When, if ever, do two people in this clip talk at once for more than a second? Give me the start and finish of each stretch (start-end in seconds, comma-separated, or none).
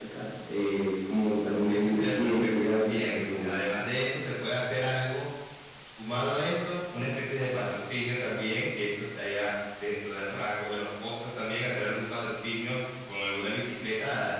1.7-3.6